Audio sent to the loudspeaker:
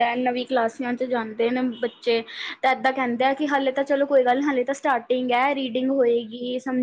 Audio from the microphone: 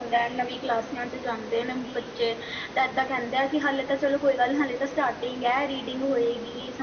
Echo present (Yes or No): Yes